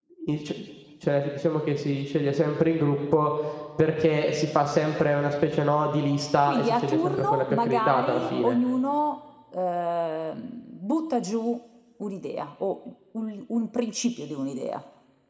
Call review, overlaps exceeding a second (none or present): present